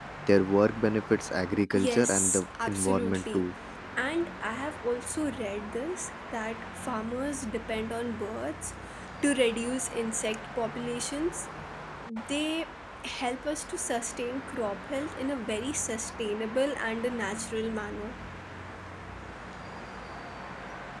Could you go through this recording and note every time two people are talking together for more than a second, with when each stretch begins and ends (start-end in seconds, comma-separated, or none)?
1.7-3.5